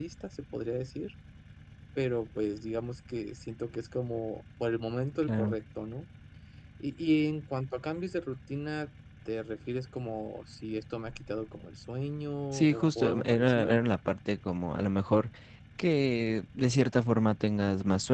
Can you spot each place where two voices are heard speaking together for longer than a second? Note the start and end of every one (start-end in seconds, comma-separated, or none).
12.5-13.8